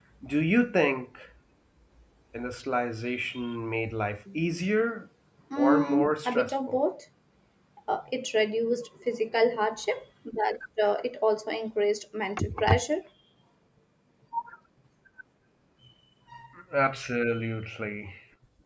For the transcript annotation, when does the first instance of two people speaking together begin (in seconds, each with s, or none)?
5.6 s